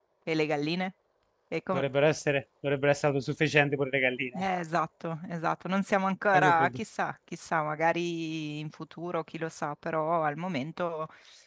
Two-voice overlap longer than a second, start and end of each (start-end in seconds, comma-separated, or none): none